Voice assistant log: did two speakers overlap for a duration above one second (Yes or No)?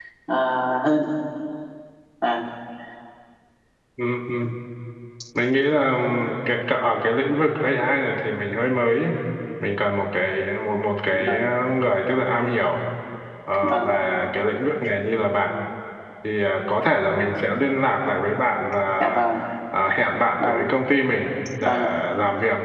No